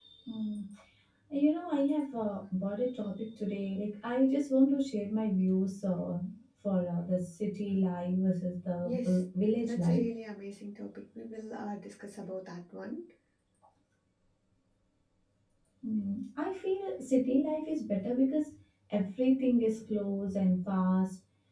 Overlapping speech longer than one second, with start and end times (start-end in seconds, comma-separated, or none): none